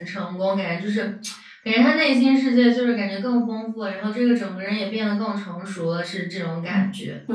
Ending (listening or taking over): taking over